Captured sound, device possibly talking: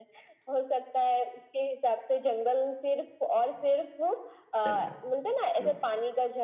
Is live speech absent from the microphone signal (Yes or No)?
No